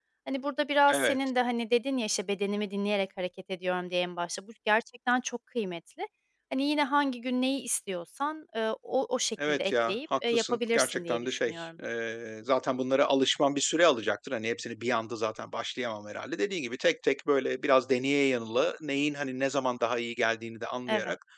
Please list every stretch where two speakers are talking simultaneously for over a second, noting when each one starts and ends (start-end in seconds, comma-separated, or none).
9.5-11.7